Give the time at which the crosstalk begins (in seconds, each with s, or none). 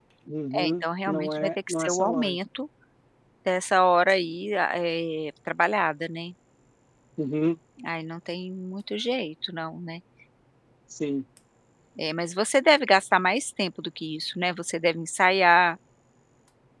0.5 s